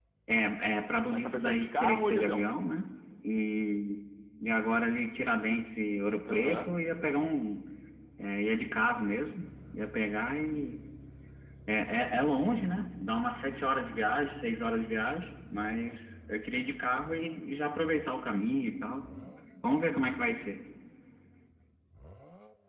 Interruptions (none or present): present